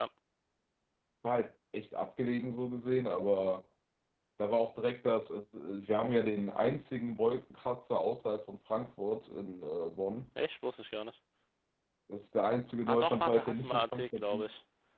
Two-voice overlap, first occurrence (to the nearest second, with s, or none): 13 s